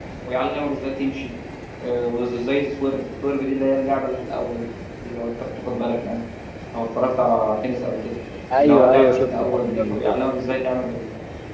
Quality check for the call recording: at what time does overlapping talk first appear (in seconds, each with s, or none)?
8.6 s